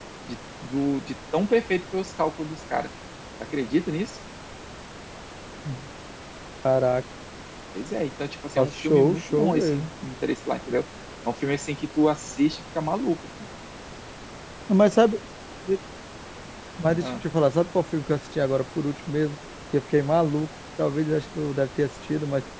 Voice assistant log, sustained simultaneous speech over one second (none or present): present